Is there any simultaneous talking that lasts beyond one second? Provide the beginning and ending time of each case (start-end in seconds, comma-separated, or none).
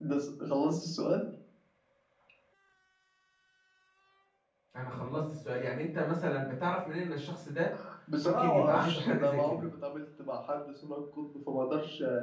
8.2-9.6